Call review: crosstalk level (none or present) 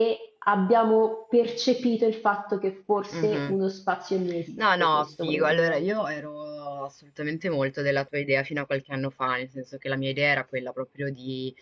present